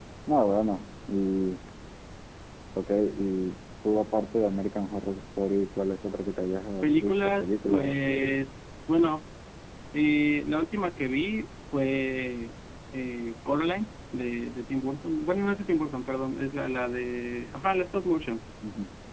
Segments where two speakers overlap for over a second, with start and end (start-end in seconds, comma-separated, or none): 6.8-8.4